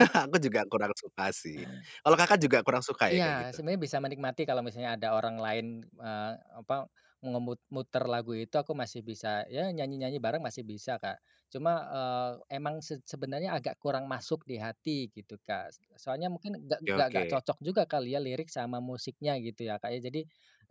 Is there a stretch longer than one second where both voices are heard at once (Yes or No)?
No